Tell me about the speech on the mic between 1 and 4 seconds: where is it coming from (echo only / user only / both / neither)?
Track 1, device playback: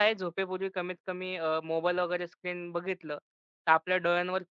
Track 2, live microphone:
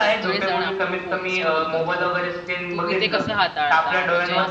both